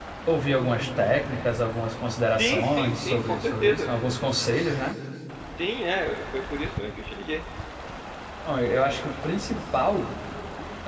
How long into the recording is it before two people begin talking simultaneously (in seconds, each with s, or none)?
2.4 s